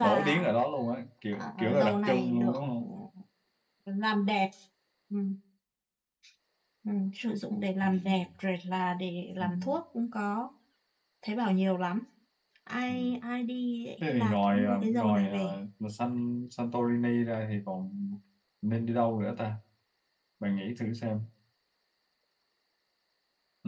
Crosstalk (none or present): present